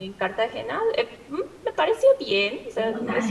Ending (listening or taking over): taking over